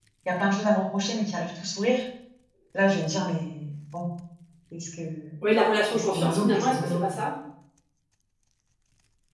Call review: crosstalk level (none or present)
present